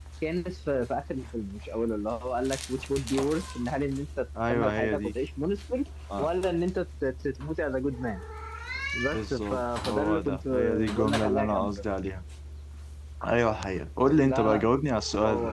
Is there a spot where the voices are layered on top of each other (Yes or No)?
Yes